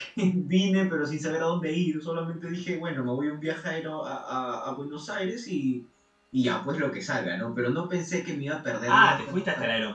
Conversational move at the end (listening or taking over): taking over